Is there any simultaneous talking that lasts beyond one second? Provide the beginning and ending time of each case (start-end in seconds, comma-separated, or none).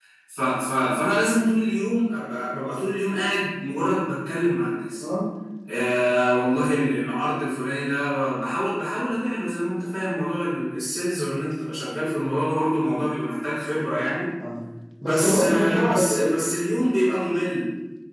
15.0-16.3